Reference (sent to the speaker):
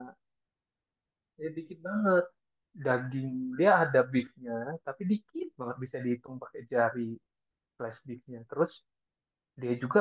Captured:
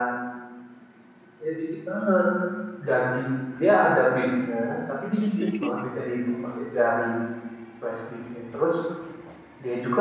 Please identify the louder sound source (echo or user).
echo